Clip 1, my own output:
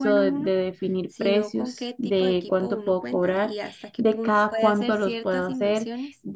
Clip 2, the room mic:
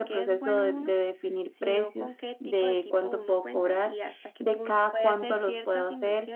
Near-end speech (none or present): none